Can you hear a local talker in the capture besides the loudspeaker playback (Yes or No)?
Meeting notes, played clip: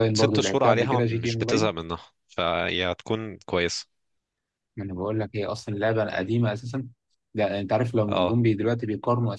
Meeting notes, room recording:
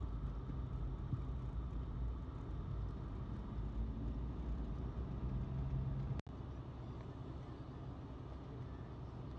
No